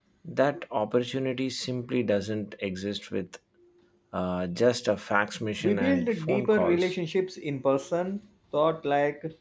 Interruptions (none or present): present